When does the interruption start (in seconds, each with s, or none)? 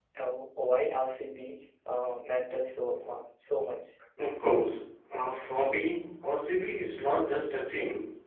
none